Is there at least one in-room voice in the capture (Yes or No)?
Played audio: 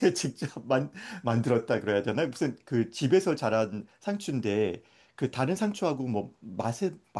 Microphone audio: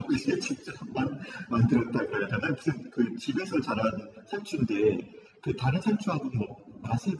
No